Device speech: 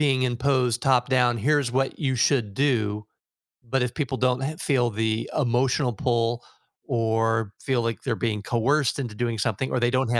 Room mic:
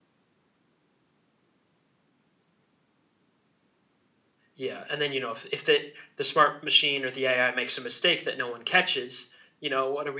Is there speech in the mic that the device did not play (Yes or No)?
Yes